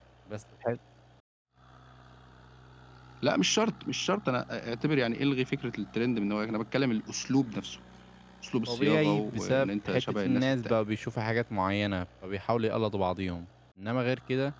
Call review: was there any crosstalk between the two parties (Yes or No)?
Yes